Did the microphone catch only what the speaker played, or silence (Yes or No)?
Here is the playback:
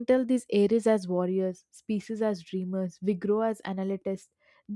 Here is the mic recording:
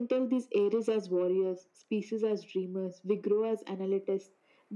Yes